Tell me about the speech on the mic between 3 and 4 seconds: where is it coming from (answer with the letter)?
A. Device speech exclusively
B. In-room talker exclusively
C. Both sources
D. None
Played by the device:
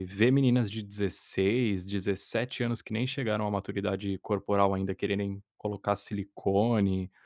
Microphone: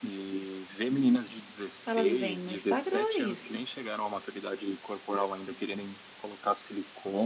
C